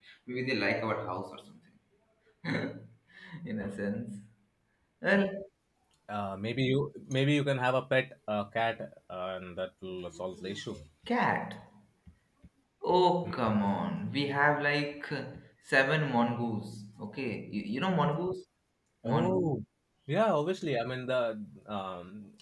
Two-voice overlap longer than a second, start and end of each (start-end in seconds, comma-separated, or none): none